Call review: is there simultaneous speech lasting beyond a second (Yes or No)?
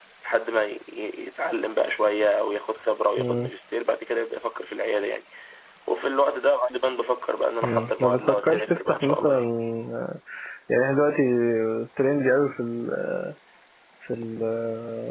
Yes